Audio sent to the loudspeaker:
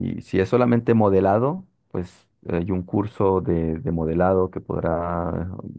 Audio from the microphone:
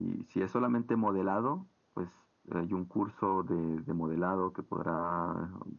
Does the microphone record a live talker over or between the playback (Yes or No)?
No